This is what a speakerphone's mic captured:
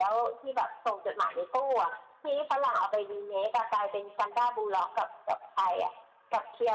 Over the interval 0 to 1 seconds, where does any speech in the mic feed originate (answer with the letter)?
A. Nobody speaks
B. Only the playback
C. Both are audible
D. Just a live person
B